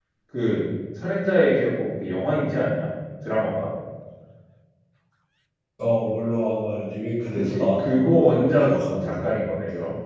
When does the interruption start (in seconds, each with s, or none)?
7.4 s